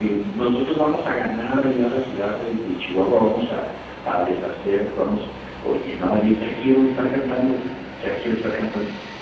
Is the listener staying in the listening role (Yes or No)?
No